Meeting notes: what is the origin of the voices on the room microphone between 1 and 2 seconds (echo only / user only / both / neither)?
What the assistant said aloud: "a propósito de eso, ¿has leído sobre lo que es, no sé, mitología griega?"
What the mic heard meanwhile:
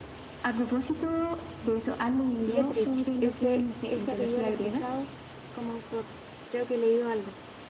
echo only